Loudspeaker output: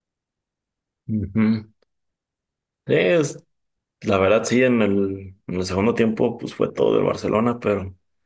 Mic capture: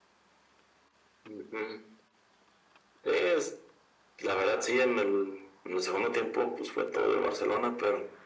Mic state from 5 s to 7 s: echo only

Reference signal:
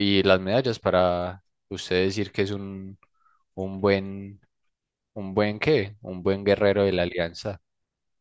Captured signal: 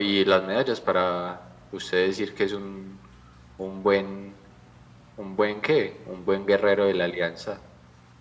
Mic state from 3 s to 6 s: echo only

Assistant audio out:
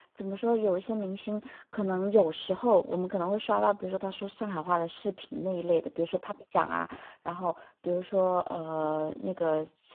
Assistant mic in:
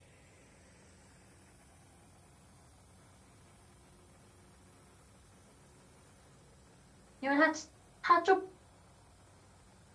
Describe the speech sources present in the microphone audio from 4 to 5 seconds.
neither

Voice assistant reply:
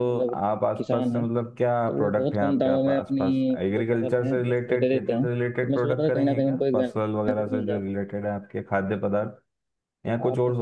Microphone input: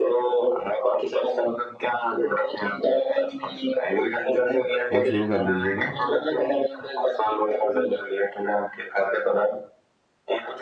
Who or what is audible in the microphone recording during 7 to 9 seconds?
echo only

